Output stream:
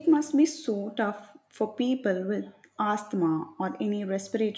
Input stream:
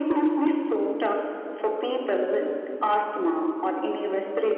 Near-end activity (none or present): none